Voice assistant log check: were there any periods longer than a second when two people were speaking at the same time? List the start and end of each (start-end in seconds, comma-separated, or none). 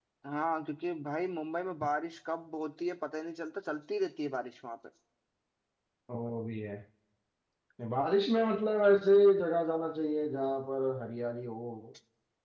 none